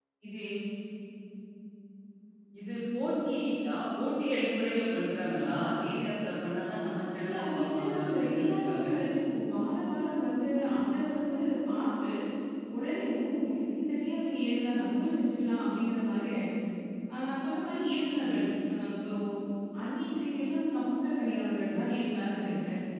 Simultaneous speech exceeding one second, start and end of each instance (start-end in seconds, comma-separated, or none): 7.2-8.8